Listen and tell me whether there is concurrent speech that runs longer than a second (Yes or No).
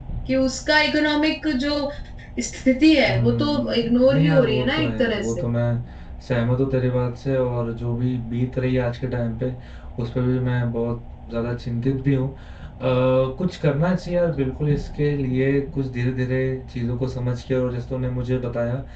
Yes